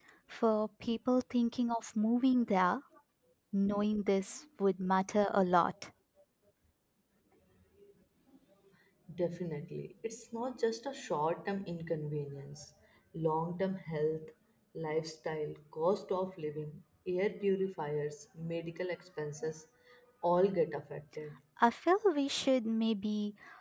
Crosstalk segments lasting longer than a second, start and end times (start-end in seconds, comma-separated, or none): none